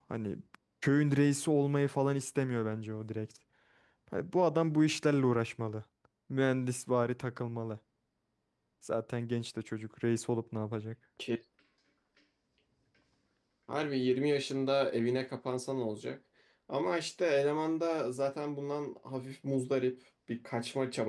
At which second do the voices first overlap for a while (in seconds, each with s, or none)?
none